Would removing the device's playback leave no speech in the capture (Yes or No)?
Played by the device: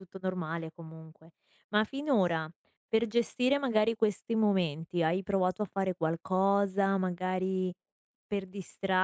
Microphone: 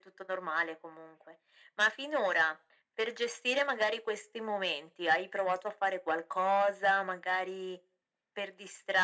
Yes